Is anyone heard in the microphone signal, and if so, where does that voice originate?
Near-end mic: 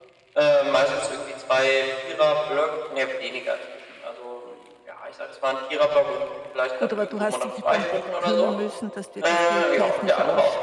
both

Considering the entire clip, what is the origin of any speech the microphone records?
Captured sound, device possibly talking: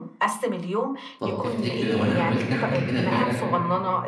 both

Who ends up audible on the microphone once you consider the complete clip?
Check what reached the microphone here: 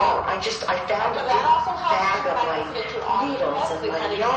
echo only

